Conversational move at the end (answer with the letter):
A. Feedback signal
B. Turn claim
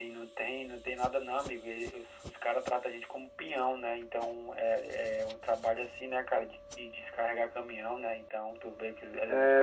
B